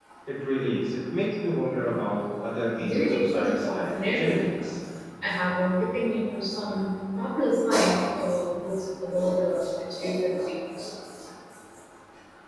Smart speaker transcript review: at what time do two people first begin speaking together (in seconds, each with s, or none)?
2.8 s